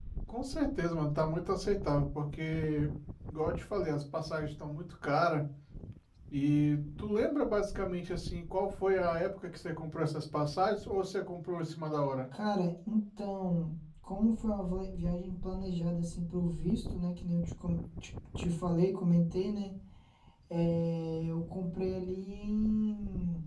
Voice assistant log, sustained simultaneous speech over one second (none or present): none